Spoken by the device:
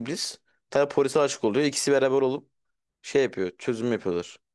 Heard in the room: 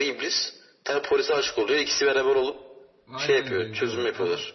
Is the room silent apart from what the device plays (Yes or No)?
No